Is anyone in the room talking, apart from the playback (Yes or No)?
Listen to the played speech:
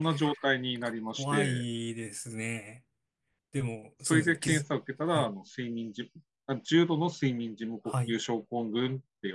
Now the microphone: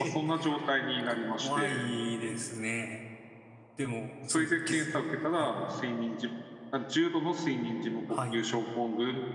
No